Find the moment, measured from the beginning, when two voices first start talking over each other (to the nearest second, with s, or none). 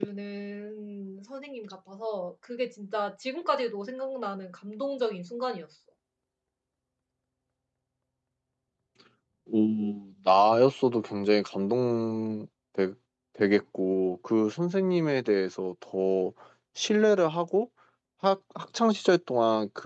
none